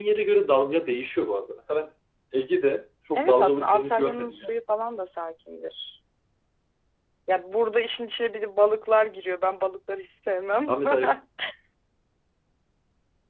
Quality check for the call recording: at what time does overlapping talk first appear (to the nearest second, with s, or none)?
3 s